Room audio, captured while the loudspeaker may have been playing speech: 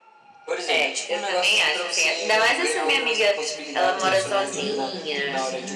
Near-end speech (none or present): present